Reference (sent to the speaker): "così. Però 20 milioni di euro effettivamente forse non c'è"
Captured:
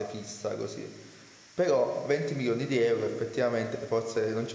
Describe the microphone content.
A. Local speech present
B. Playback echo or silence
B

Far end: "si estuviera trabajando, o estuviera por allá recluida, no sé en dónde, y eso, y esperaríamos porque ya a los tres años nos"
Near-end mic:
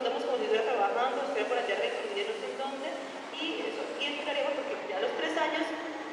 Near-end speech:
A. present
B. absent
B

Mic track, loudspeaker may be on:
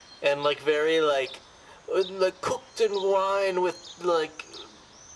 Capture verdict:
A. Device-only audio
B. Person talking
A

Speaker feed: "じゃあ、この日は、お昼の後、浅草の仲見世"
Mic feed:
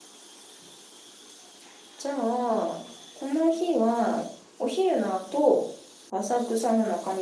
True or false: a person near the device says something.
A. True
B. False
B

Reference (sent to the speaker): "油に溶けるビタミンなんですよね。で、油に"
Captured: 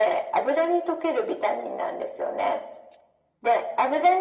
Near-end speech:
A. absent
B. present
A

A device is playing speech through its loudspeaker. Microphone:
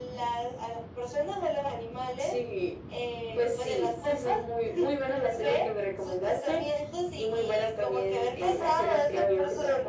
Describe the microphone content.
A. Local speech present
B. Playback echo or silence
B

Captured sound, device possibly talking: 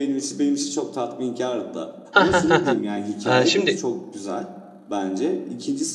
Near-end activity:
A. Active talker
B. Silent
A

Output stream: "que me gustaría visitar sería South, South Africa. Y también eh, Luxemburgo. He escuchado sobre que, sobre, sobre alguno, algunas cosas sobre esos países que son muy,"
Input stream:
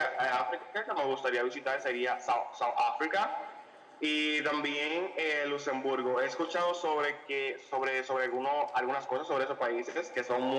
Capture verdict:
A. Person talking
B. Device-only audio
B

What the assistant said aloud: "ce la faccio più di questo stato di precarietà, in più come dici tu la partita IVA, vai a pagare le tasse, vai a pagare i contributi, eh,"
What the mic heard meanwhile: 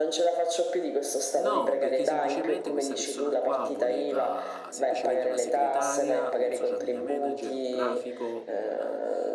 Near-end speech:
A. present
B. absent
A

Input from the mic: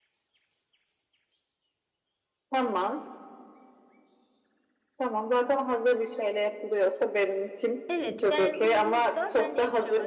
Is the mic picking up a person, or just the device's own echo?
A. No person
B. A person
B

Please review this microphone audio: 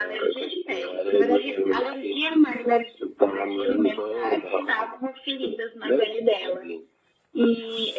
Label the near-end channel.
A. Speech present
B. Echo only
B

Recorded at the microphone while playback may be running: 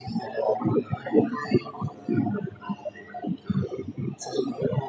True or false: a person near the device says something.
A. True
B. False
B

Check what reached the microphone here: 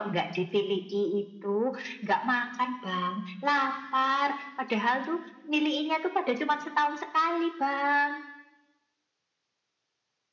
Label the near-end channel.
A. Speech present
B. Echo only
B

